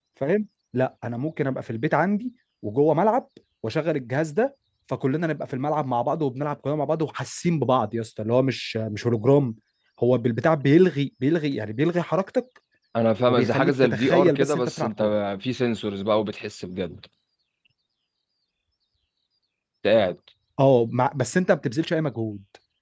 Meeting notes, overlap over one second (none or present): present